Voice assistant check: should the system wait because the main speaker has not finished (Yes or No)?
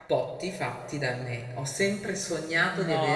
No